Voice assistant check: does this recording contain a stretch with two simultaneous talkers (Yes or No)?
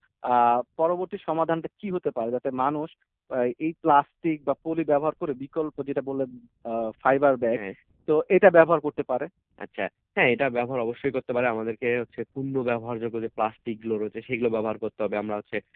No